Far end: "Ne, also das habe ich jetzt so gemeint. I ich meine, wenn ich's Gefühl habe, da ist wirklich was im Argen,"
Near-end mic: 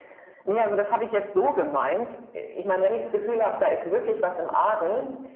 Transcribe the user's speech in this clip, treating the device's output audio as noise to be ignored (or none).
none